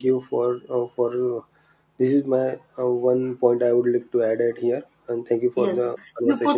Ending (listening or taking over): taking over